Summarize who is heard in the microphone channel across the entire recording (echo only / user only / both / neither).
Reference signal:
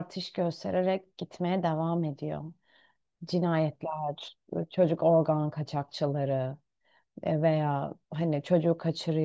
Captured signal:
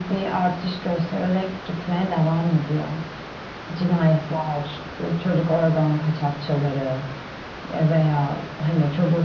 echo only